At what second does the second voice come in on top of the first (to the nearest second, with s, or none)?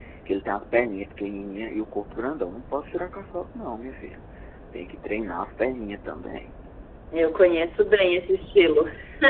none